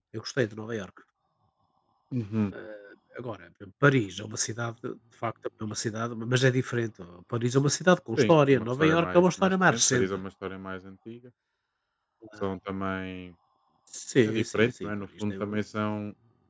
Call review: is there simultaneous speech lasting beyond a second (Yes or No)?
Yes